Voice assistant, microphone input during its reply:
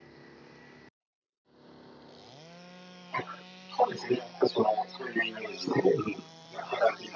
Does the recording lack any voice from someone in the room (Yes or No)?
Yes